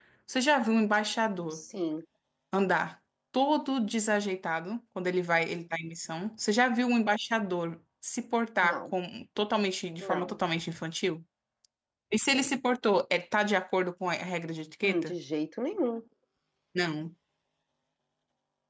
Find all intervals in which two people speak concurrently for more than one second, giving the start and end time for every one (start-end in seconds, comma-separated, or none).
none